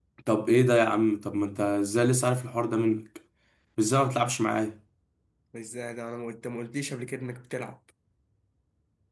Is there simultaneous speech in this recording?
No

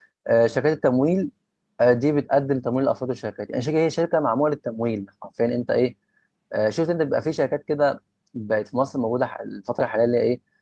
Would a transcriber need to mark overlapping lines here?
No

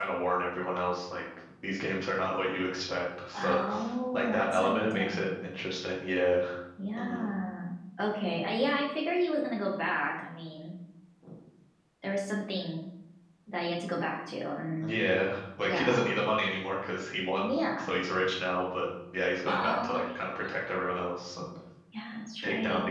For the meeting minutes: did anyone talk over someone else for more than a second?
Yes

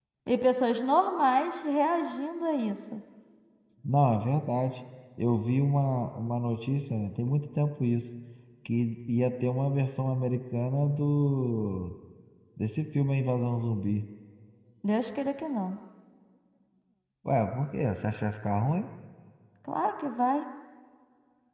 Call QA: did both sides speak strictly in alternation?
Yes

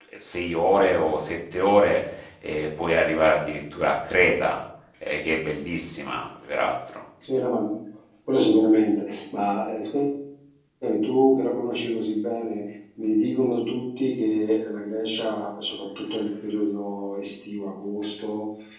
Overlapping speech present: No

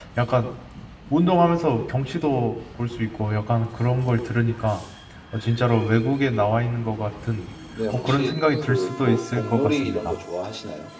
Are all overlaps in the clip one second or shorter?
No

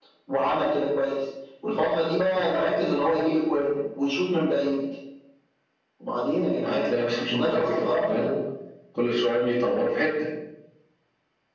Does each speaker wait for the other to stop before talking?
No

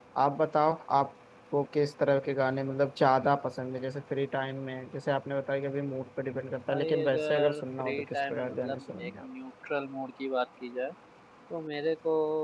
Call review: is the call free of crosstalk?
No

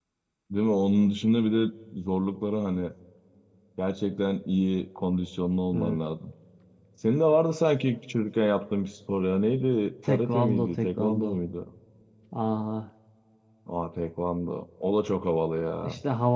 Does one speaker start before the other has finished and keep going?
Yes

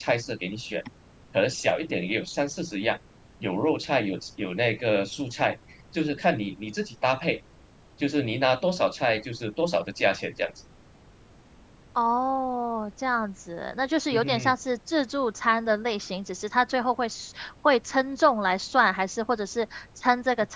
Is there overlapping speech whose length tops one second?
No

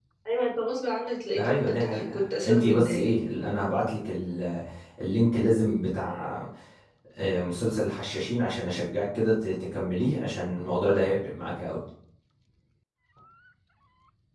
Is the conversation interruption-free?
No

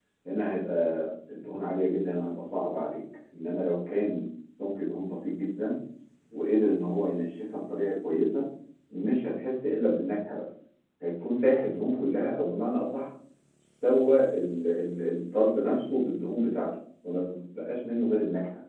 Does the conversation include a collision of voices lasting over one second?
No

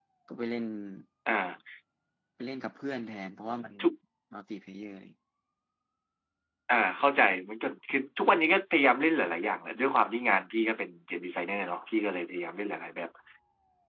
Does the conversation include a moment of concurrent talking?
No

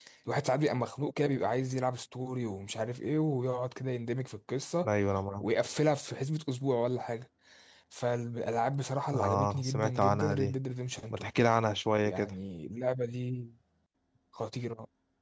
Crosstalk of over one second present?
Yes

